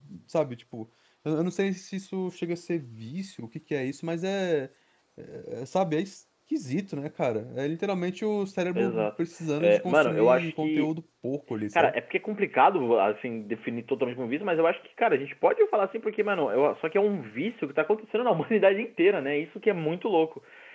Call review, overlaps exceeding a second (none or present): present